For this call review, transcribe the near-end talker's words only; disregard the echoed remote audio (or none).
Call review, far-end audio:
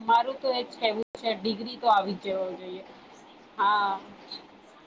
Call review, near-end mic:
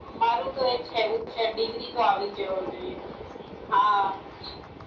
none